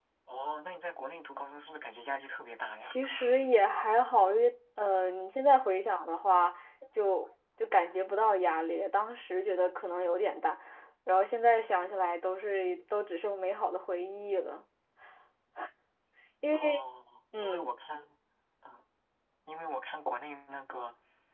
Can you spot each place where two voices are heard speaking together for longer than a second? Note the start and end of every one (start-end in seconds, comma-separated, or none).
none